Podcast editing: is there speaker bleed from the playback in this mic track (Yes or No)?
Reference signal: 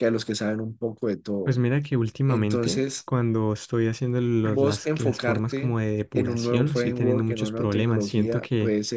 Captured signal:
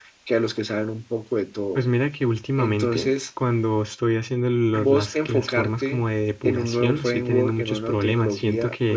Yes